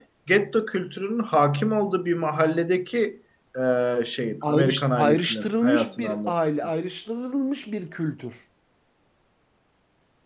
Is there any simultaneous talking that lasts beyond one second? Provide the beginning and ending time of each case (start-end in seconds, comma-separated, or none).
4.4-6.3